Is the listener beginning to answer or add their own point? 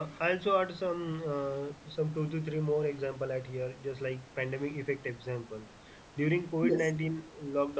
No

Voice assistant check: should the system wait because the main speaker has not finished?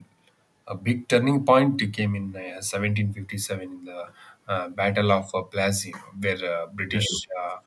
Yes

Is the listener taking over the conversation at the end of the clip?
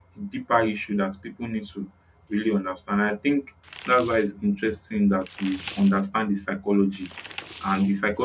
No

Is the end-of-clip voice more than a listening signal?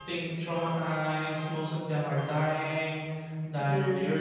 No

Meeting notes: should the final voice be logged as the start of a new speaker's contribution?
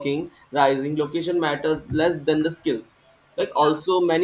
No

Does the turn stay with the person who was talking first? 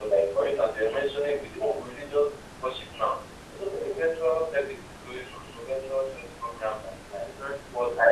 Yes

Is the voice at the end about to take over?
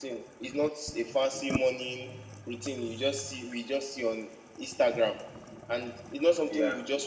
No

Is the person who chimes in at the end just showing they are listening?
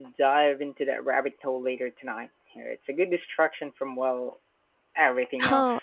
No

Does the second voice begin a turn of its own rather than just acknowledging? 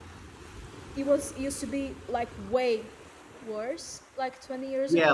Yes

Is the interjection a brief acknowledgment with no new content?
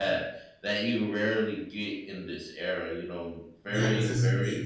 No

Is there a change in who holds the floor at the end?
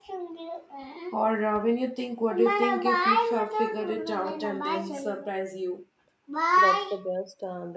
Yes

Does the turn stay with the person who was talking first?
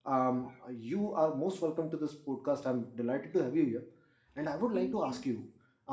Yes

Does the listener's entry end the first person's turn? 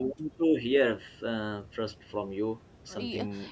Yes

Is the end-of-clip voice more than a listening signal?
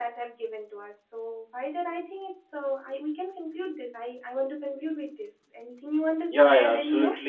Yes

